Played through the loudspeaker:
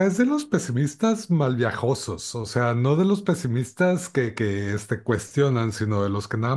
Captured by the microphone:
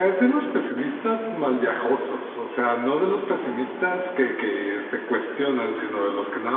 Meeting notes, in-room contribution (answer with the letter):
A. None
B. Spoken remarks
A